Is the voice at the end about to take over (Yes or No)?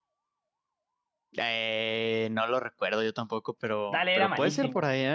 Yes